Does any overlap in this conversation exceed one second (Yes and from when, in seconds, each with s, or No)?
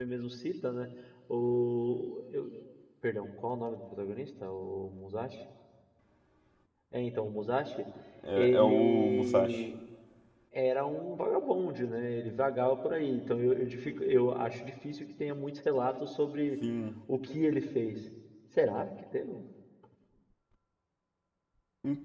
Yes, from 8.4 s